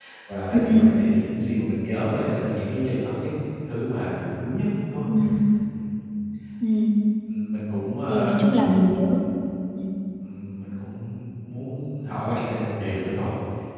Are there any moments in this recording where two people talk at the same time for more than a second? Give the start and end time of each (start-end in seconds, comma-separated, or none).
none